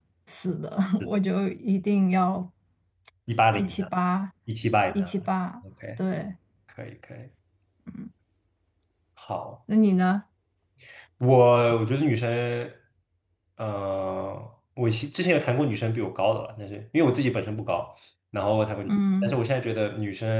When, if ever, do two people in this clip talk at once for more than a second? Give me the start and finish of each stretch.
none

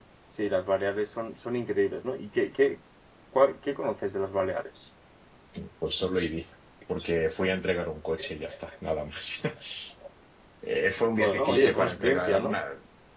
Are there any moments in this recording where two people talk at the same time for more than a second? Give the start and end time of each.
11.1-12.5

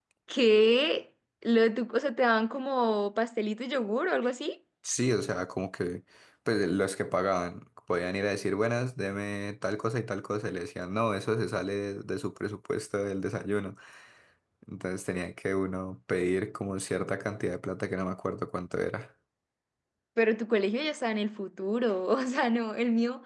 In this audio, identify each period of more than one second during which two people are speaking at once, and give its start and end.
none

